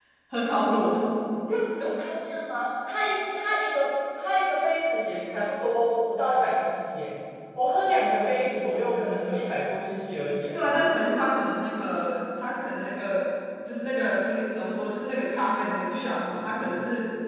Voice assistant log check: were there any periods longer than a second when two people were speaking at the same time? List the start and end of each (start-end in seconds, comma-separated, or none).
none